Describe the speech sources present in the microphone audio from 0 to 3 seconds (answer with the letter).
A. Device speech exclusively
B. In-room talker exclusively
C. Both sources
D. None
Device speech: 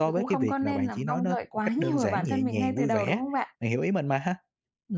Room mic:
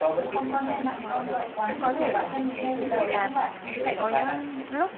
C